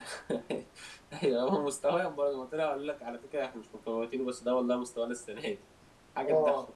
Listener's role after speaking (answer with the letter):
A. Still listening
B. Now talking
B